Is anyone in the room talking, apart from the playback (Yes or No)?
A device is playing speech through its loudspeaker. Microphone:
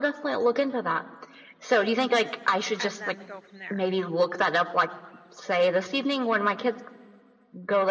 Yes